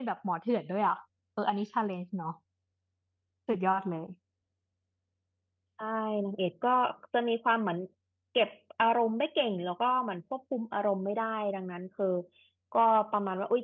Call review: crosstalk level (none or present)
none